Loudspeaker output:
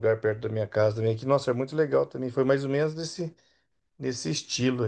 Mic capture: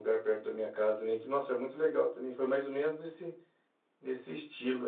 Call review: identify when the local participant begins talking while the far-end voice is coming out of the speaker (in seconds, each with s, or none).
none